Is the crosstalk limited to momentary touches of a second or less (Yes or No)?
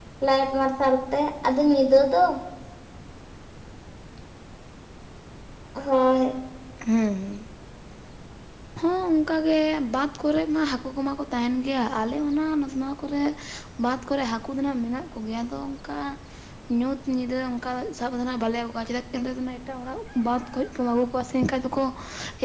Yes